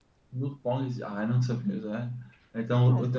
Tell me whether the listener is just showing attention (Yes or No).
Yes